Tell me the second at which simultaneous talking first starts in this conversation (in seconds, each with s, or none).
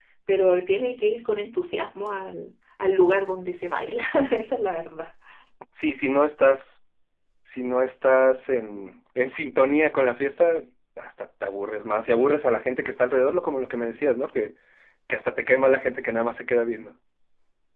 none